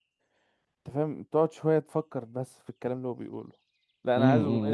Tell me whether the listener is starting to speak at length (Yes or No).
Yes